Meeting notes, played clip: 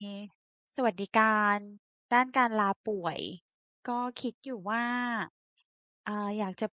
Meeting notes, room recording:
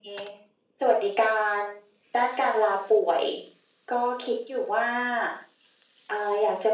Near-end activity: none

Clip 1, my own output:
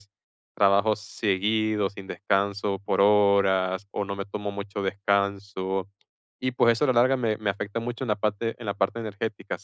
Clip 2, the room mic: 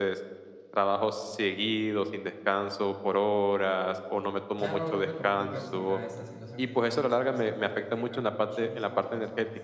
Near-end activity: present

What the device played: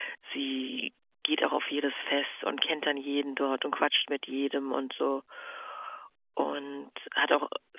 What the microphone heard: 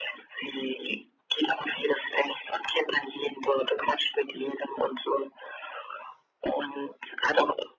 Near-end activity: none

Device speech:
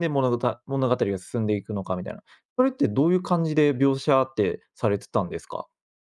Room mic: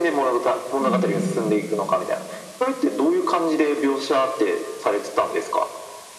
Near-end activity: present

